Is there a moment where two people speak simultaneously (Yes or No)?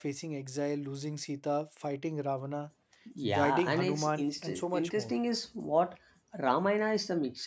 Yes